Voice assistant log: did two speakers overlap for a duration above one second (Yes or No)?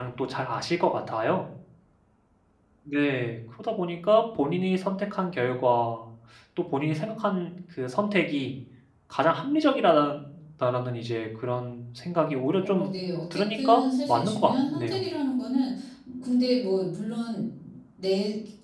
Yes